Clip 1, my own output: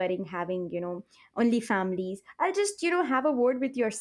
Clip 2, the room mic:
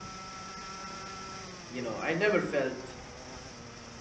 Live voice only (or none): you know i never felt